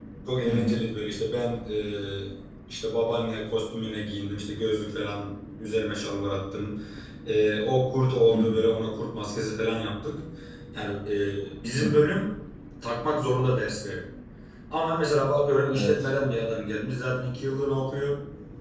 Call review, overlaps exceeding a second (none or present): none